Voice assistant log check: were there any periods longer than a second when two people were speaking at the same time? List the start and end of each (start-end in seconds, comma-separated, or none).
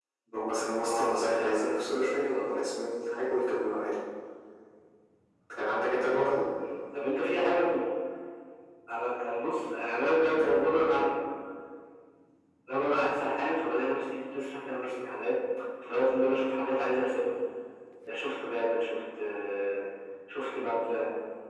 0.8-2.5